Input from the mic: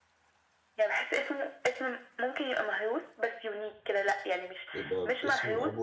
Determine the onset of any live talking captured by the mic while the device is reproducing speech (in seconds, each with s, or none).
4.7 s